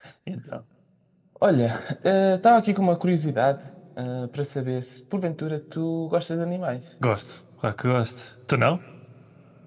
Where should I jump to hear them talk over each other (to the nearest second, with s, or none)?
none